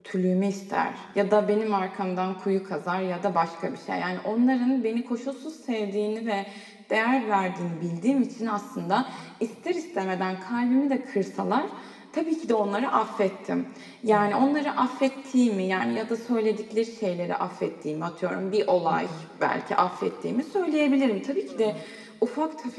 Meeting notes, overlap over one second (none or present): none